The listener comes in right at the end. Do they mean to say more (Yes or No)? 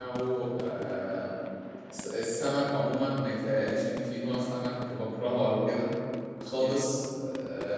No